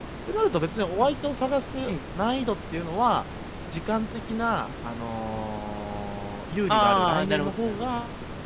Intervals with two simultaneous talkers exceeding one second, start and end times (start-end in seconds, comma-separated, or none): 6.7-7.9